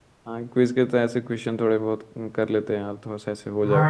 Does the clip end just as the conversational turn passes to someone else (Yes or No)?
Yes